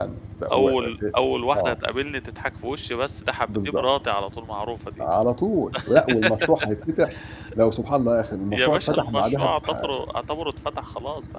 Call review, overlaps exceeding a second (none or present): present